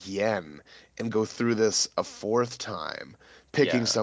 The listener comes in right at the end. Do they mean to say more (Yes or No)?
No